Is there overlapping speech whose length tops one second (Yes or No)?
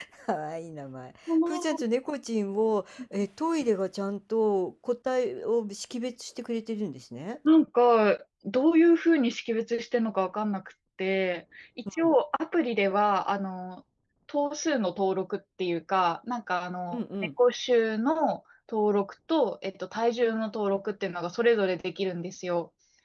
No